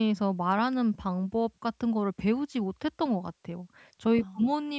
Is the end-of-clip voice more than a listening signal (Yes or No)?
No